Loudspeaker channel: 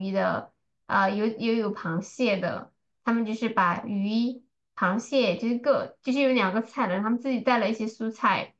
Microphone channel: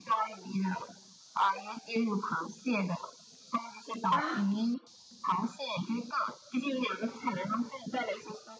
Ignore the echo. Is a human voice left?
Yes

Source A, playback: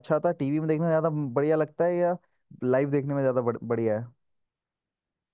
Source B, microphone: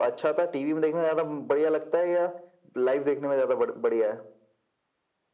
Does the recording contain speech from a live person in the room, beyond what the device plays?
No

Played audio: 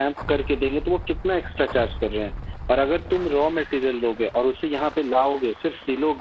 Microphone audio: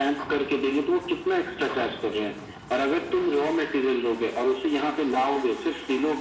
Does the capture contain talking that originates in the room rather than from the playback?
No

